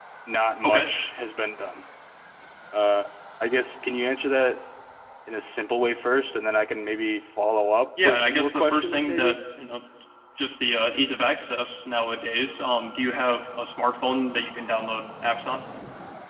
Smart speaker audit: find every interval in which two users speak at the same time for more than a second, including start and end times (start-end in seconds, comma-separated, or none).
8.0-9.4